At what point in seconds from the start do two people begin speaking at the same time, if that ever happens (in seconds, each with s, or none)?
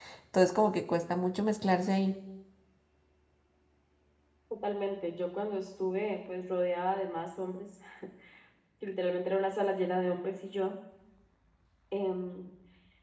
none